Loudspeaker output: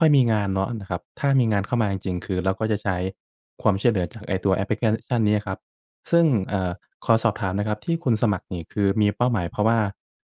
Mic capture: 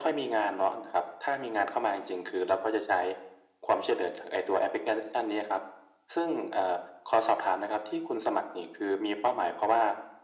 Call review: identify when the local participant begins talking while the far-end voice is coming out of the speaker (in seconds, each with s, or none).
none